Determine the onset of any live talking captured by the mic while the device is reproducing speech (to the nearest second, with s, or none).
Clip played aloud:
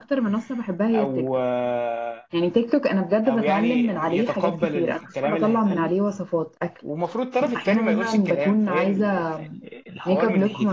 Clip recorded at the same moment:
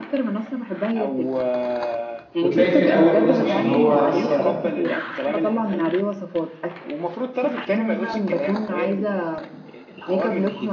2 s